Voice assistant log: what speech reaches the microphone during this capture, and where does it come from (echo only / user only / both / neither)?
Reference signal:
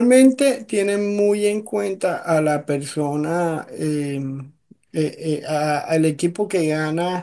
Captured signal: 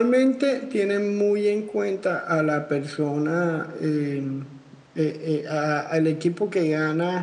echo only